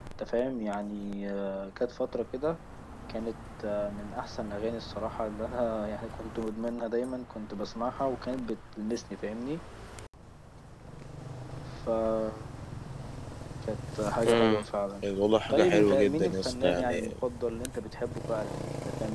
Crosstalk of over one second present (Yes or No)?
Yes